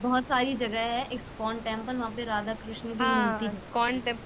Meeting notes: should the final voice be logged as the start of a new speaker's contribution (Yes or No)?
Yes